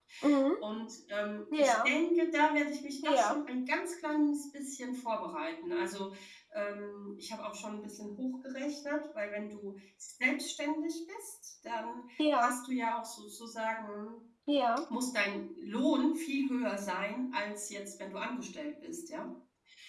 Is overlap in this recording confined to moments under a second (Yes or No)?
Yes